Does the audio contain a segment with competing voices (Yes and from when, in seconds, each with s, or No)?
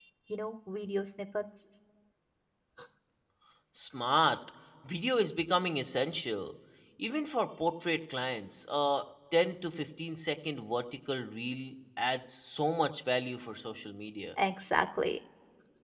No